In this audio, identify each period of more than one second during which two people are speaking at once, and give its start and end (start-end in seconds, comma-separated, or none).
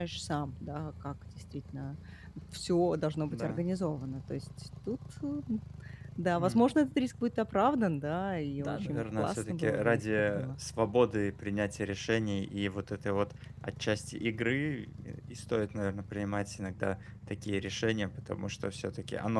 8.6-10.5